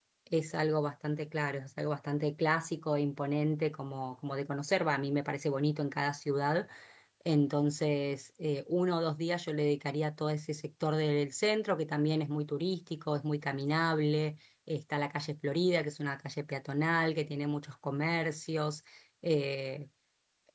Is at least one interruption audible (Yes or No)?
No